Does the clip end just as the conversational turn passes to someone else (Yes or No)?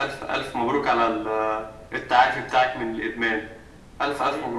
Yes